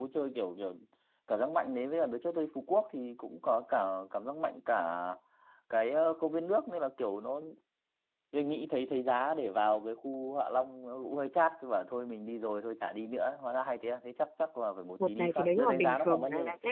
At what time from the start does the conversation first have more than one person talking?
15.0 s

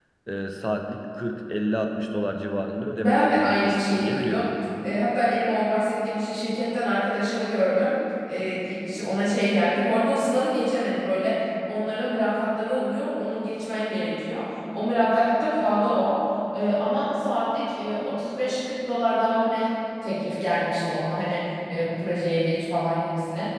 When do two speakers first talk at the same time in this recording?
3.0 s

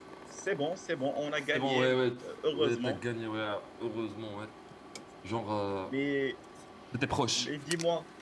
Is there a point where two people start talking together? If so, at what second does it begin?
1.5 s

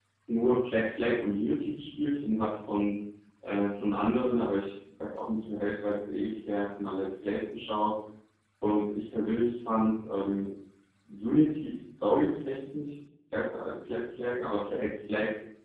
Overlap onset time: none

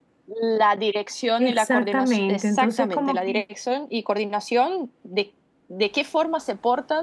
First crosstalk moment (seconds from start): 1.4 s

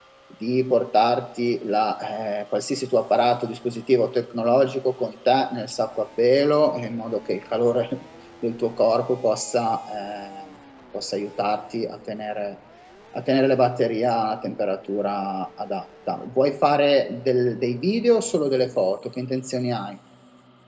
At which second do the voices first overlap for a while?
none

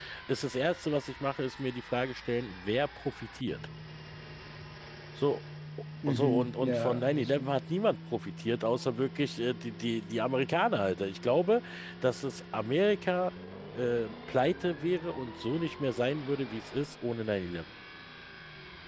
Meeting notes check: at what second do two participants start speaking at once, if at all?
6.1 s

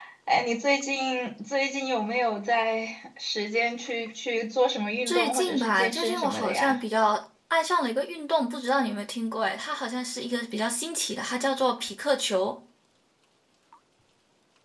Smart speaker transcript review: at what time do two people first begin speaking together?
5.1 s

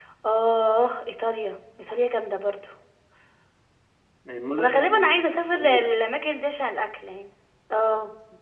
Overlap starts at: 4.6 s

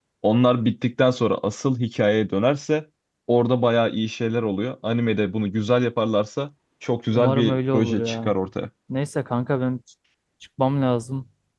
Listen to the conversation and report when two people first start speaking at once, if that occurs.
7.1 s

